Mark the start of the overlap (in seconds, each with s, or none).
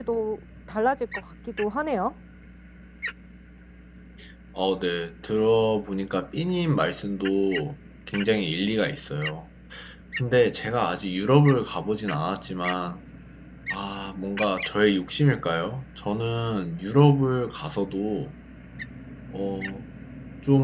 none